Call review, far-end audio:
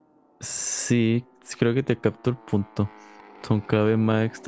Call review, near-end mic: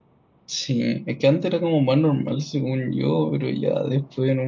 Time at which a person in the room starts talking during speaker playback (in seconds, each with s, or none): 0.5 s